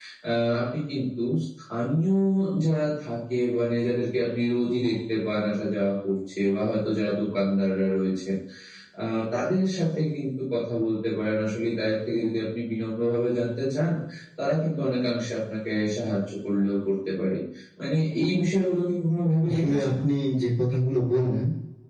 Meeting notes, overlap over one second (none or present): none